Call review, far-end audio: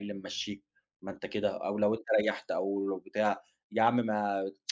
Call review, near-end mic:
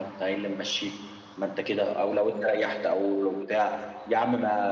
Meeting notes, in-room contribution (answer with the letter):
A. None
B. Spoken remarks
A